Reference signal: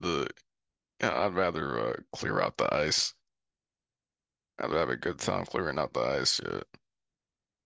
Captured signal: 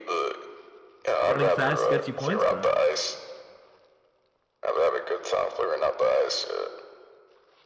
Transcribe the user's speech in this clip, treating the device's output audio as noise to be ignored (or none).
Running fast gets you points, bro.